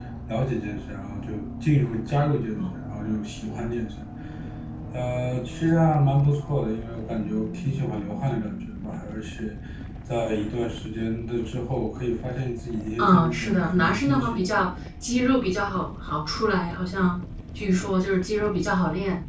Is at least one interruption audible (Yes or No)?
Yes